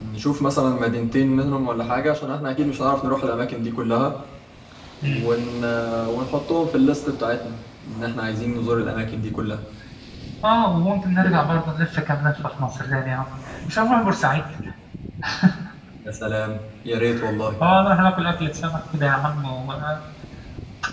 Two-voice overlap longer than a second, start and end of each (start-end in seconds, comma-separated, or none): none